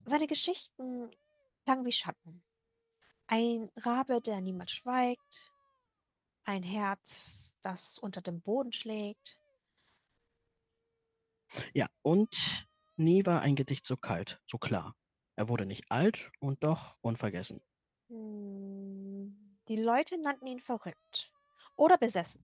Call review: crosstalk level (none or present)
none